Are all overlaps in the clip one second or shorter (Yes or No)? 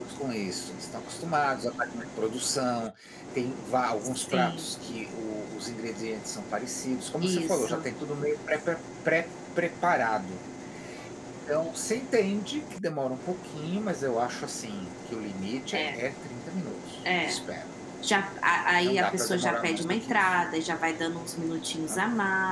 No